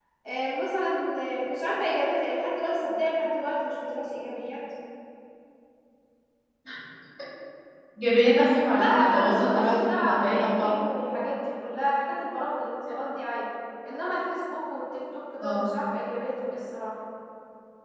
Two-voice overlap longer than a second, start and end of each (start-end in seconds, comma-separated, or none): 8.3-10.7